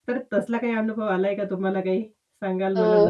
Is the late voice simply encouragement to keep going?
No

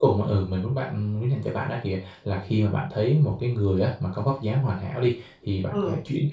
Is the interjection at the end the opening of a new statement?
No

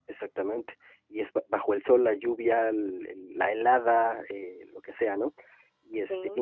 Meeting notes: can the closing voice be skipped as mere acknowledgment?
Yes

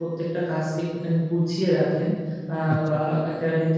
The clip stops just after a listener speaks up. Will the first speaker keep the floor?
Yes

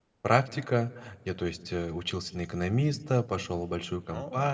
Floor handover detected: No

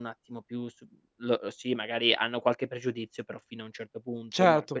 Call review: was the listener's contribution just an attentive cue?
Yes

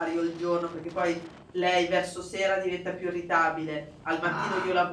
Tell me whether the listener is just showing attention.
Yes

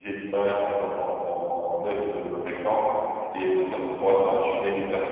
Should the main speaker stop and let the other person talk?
No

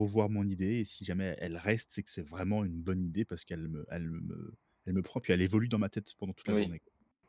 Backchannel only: No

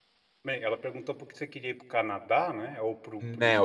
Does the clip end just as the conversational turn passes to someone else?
Yes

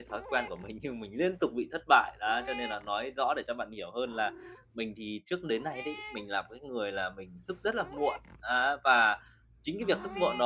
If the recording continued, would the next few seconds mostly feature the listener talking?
No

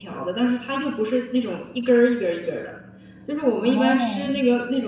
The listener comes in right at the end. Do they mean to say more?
No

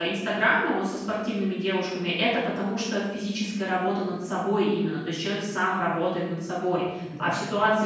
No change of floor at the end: Yes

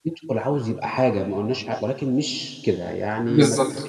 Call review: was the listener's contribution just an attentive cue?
No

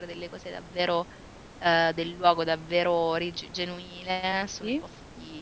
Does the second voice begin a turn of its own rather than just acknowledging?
No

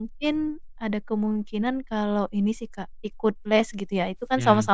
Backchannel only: Yes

